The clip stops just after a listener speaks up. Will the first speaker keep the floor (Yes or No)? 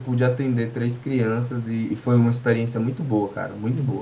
No